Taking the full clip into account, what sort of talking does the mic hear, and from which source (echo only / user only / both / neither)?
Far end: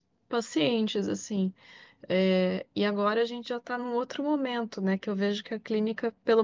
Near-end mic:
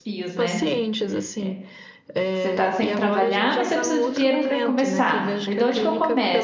both